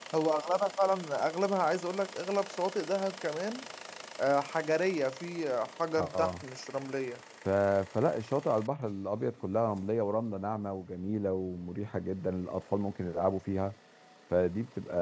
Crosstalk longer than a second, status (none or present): none